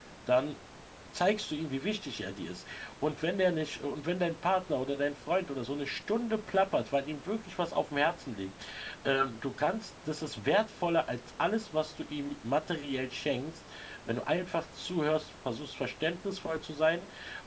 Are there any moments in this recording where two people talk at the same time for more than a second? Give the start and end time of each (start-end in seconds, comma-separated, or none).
none